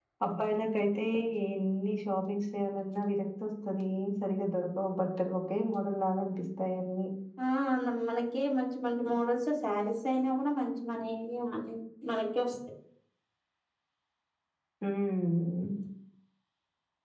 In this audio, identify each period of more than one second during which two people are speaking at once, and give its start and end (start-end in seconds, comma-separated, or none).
none